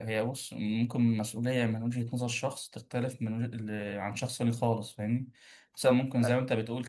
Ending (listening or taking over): listening